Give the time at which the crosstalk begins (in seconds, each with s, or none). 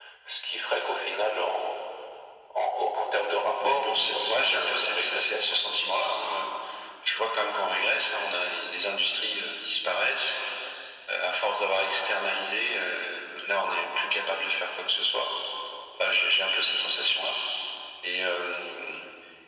3.6 s